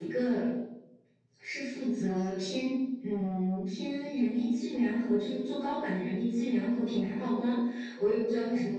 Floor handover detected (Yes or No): No